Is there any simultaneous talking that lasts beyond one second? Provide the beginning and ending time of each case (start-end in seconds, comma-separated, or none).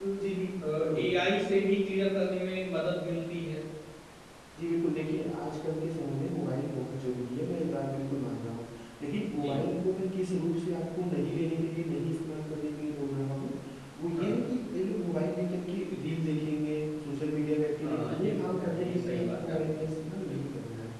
17.8-19.8